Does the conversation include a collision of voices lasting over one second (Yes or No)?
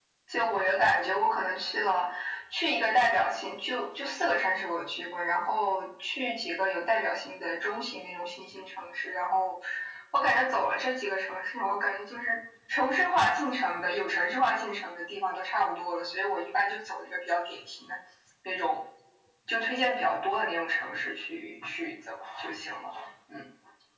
No